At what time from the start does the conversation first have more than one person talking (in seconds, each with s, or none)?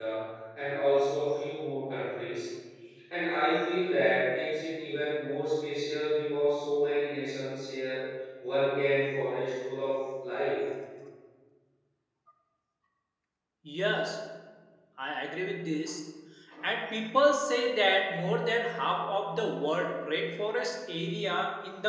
none